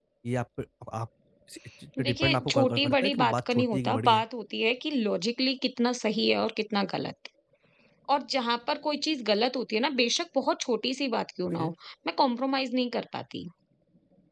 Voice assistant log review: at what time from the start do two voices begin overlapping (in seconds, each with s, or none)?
2.0 s